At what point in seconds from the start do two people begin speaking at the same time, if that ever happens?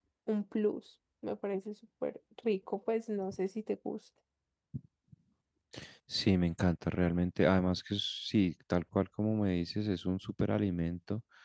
none

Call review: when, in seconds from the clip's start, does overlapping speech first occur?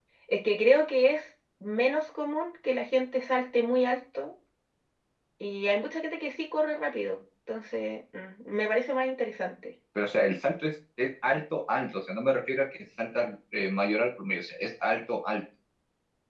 none

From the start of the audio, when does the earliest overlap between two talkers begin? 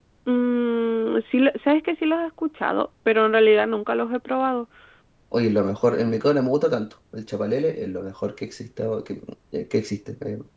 none

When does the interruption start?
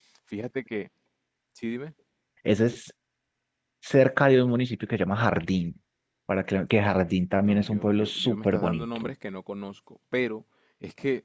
7 s

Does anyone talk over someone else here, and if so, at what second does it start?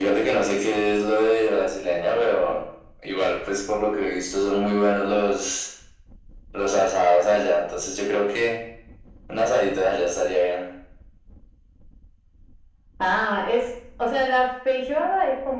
none

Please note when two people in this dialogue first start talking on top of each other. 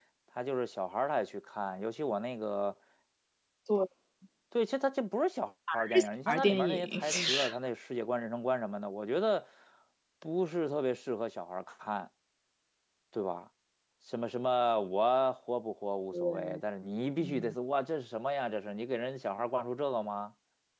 6 s

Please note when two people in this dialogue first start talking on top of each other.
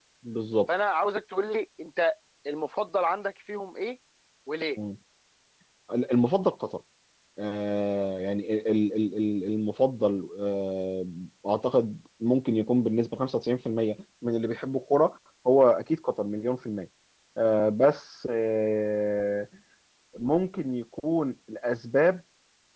none

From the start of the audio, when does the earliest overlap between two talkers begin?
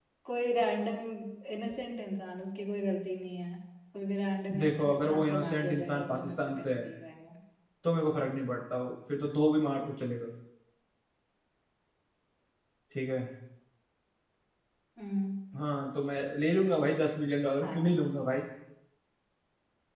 5 s

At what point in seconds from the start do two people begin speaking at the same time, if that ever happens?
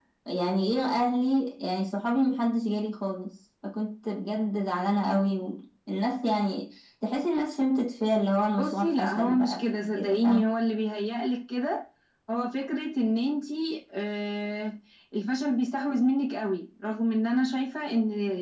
9 s

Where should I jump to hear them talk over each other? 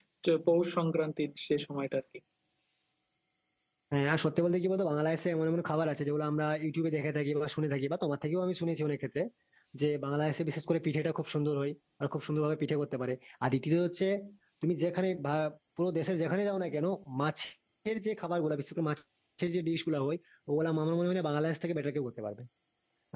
none

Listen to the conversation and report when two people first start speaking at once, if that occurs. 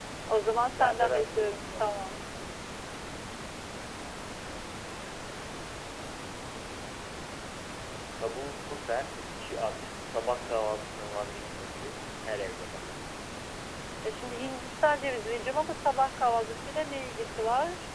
1 s

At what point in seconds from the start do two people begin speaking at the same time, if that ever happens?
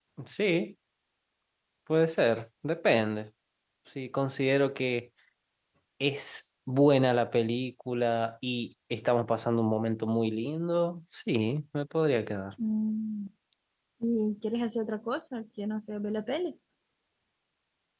none

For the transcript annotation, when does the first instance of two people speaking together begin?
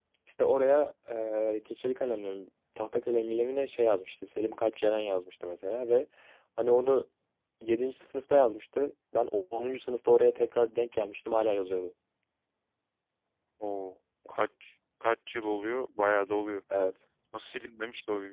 none

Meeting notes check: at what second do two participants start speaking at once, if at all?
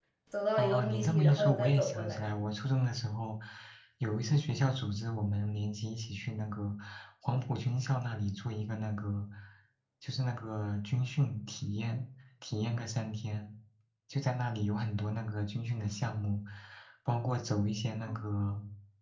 1 s

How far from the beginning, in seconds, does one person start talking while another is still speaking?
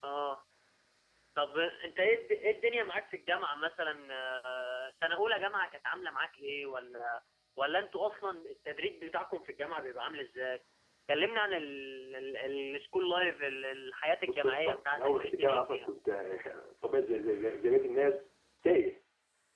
14 s

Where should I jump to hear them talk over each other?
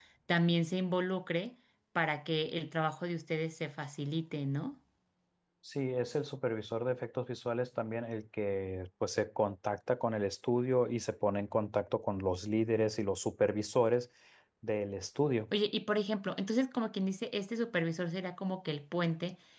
none

